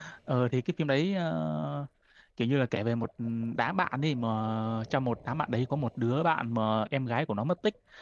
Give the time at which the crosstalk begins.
none

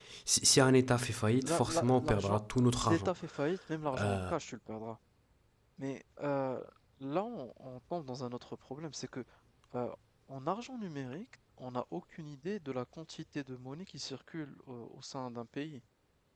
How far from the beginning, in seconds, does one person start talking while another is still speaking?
1.4 s

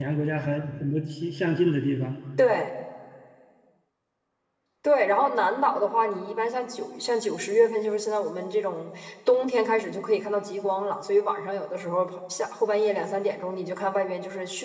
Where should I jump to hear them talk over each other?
none

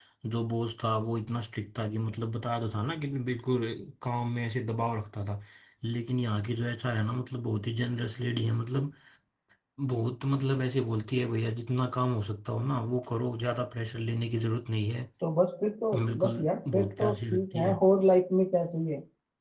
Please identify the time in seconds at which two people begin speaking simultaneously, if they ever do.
15.9 s

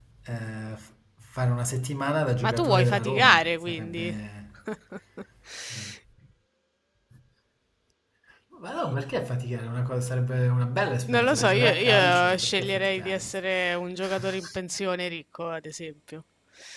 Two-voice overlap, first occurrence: 2.4 s

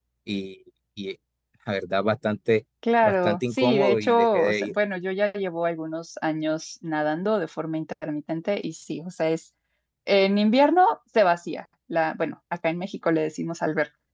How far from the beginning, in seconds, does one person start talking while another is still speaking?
2.8 s

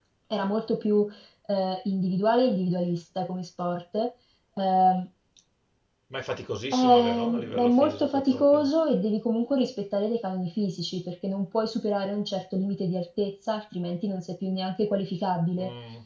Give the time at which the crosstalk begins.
6.7 s

